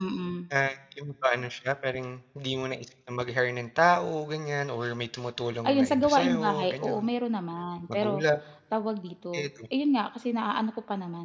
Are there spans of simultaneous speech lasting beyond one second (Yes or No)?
Yes